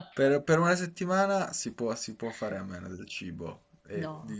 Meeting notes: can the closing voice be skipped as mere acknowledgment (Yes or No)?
Yes